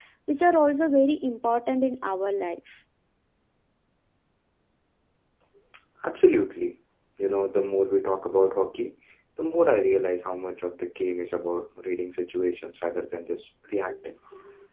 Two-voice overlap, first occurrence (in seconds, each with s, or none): none